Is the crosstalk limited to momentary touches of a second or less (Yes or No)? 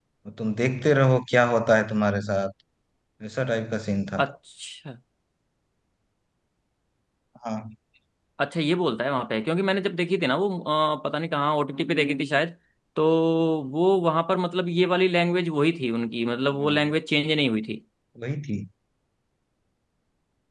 Yes